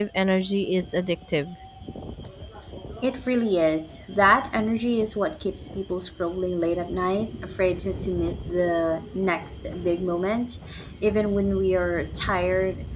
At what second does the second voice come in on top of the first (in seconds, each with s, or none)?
none